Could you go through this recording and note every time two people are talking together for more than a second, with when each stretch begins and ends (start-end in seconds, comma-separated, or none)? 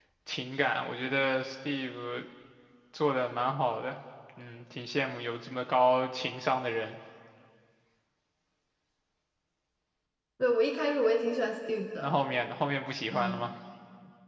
none